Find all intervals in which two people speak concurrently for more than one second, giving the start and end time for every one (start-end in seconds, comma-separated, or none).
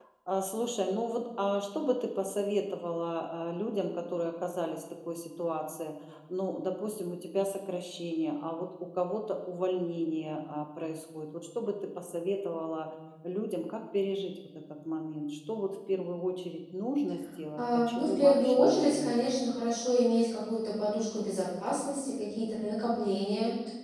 17.6-19.4